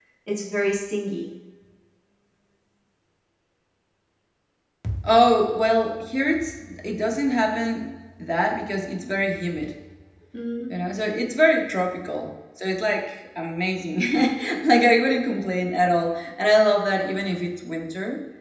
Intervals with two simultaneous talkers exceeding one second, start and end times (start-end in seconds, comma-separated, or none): none